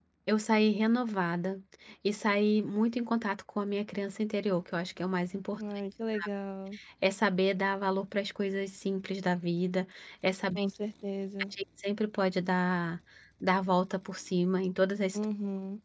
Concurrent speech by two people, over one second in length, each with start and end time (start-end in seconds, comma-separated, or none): none